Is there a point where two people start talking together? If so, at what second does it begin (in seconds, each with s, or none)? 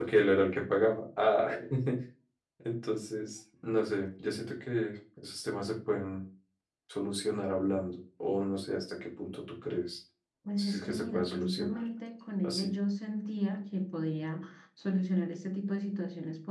10.6 s